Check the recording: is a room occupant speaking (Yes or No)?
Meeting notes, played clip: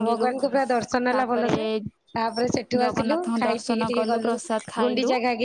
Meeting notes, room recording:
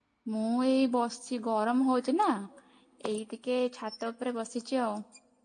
Yes